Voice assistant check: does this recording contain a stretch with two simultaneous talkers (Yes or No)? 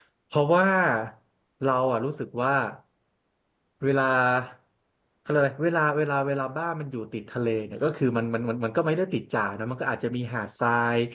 No